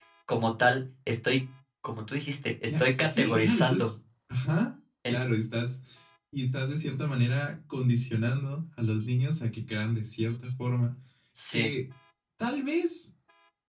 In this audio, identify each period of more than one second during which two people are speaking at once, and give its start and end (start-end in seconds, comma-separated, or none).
2.7-3.9